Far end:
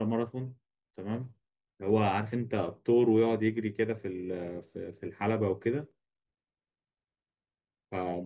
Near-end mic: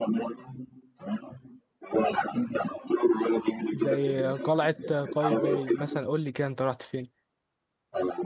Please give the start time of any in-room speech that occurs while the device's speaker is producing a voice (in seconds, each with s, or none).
3.7 s